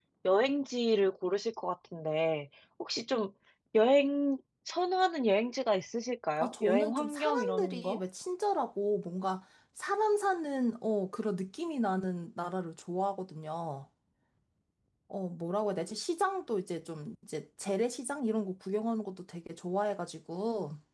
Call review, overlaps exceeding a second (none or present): present